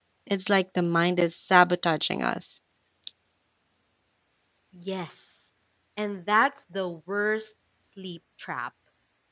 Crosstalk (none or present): none